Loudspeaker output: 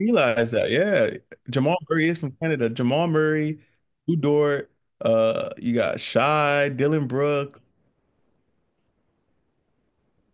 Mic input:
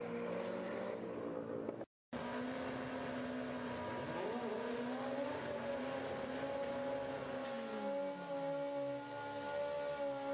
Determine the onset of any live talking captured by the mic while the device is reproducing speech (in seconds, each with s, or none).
none